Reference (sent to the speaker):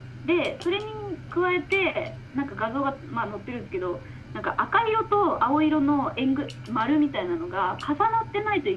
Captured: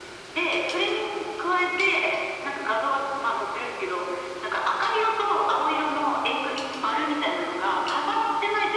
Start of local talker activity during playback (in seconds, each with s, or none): none